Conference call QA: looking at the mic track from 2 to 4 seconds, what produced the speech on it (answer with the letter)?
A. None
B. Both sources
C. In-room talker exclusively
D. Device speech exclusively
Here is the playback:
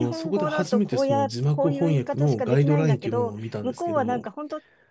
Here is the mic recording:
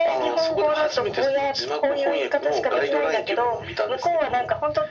D